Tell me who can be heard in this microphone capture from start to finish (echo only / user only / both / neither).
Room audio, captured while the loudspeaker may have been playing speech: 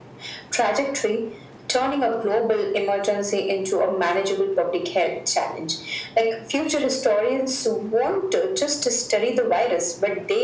echo only